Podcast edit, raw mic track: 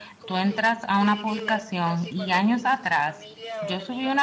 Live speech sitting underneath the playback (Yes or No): No